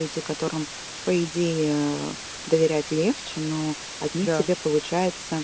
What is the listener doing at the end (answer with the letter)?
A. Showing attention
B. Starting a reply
A